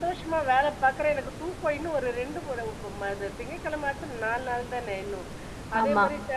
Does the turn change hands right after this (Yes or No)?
No